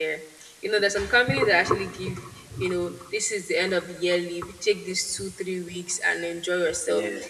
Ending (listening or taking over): listening